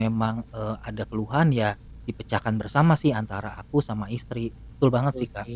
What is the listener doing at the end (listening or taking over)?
taking over